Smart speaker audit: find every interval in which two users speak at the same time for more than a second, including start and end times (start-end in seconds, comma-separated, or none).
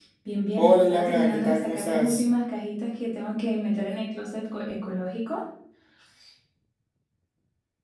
0.6-2.2